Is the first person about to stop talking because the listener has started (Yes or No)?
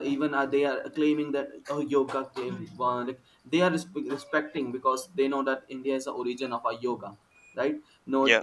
No